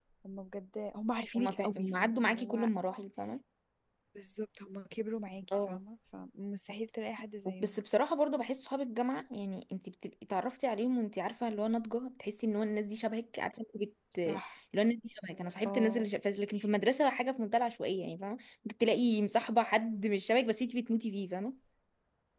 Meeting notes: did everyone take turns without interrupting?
No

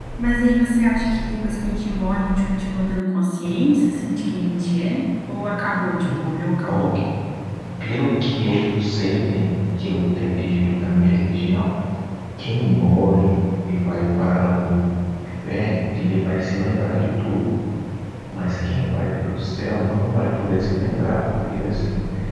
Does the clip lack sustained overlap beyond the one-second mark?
Yes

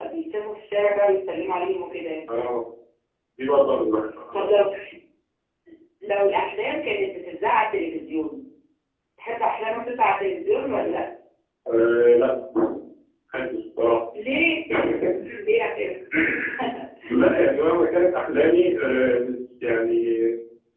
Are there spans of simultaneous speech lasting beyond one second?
No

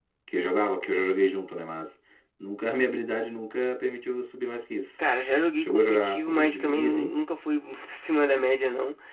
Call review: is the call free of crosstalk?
No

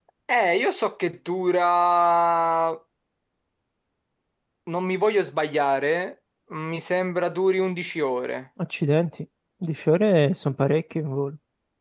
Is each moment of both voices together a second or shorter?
Yes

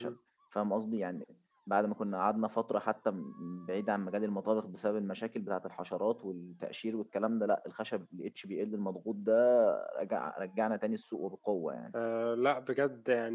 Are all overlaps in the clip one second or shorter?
Yes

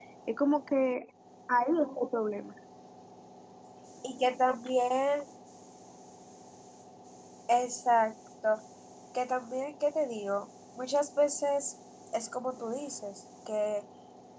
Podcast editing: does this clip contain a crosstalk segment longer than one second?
No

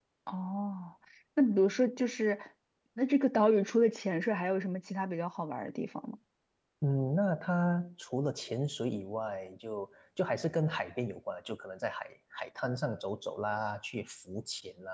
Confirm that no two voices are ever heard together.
Yes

